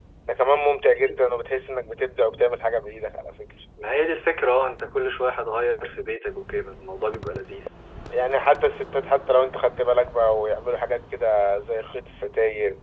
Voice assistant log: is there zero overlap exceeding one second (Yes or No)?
Yes